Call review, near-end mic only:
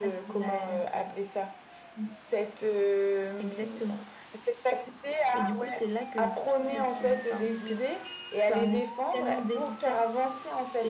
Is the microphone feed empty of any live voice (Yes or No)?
Yes